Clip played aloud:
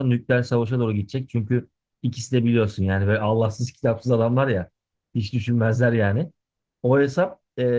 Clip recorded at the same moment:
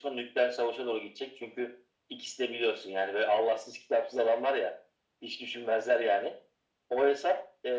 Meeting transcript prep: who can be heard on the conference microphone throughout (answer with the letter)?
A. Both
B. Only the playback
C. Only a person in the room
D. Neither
B